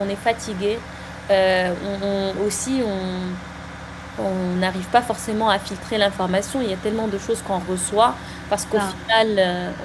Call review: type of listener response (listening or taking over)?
listening